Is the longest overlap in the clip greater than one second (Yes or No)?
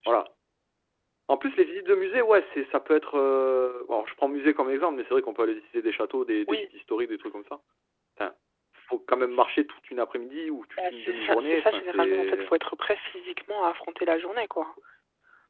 Yes